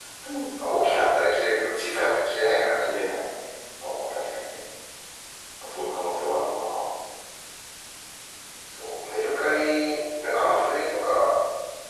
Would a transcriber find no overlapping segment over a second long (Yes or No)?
Yes